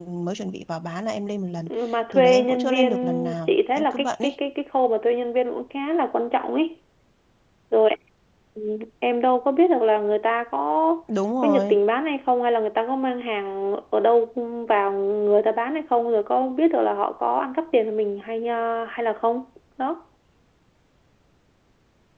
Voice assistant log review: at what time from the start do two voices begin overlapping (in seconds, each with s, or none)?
2.1 s